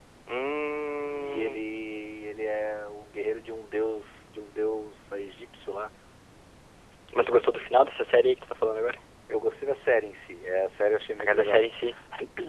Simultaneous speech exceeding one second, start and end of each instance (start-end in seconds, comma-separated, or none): none